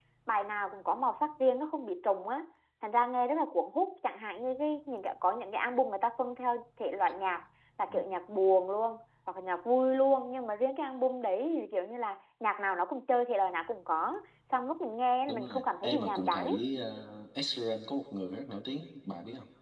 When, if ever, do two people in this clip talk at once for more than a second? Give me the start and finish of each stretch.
15.3-16.6

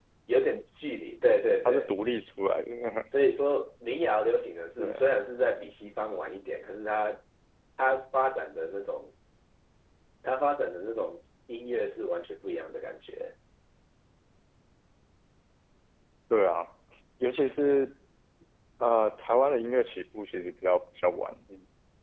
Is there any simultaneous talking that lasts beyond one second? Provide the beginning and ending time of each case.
none

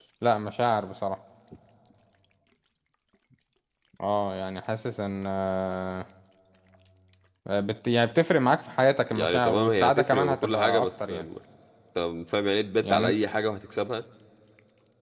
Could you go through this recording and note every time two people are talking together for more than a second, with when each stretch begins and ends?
9.1-11.1

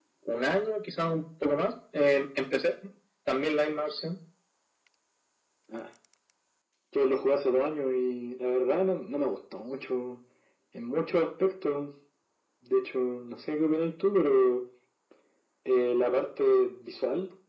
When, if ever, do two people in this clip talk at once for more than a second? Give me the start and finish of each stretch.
none

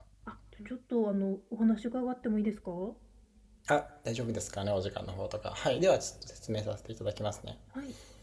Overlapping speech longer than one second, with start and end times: none

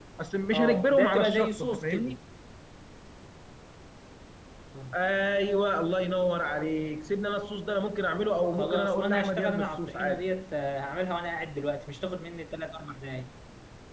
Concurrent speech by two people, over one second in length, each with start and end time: 0.5-2.2, 8.5-10.2

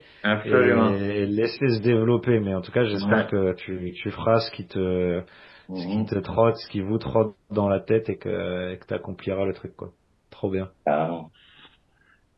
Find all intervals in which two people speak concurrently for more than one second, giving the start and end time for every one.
none

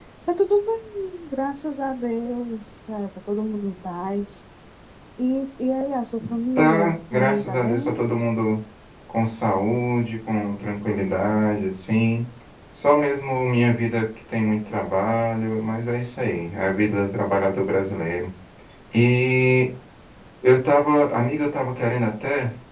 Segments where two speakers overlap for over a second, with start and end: 6.6-8.0

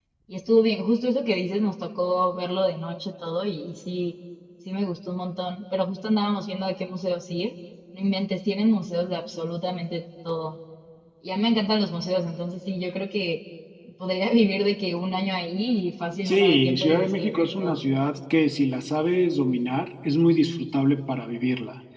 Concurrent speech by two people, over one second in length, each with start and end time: 16.2-17.8

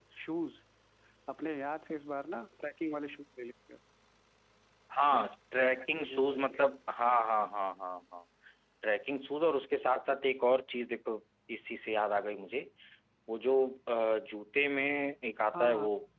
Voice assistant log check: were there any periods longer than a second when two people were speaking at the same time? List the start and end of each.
none

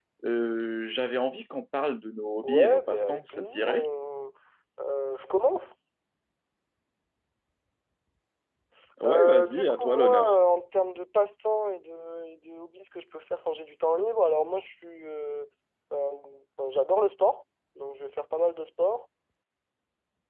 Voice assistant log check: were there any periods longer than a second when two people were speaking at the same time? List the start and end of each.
2.4-3.9, 9.1-10.3

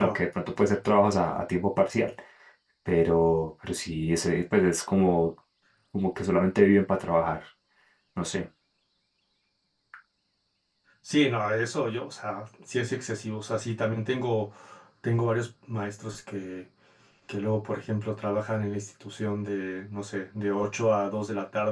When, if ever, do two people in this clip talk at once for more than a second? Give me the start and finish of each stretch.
none

